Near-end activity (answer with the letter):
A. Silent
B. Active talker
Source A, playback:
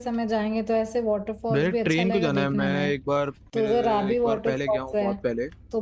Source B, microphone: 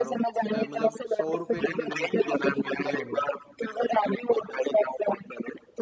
B